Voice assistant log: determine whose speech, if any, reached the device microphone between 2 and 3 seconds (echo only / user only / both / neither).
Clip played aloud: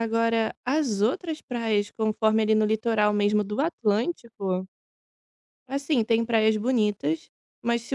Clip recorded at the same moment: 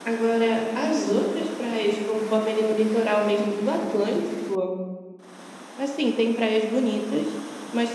echo only